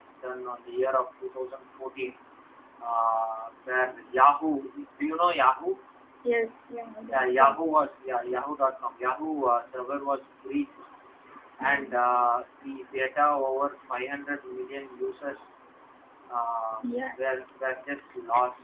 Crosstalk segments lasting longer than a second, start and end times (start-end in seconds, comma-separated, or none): none